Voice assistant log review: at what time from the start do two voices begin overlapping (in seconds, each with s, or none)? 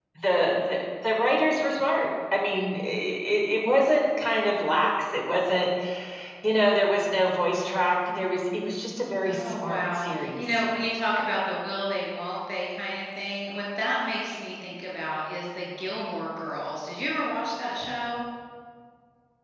9.2 s